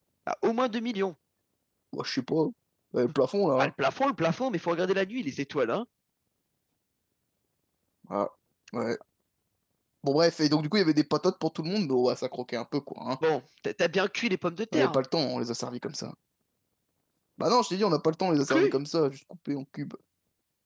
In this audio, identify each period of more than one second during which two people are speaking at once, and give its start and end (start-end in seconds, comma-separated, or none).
none